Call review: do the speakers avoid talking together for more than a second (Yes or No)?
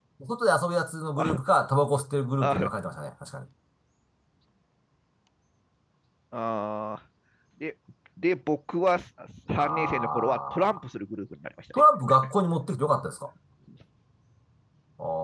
No